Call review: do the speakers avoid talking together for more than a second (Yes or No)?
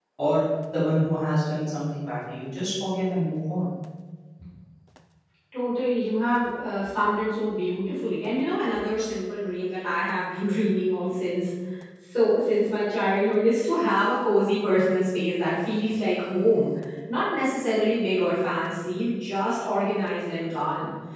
Yes